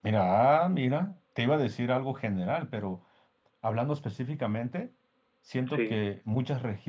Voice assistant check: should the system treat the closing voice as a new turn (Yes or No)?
No